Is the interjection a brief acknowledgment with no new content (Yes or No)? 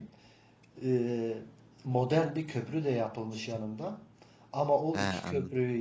Yes